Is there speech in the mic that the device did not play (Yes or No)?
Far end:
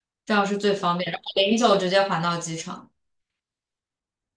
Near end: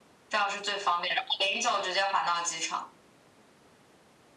No